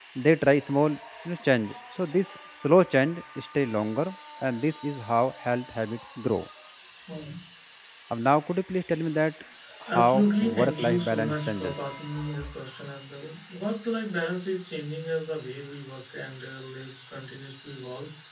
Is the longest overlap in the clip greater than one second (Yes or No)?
Yes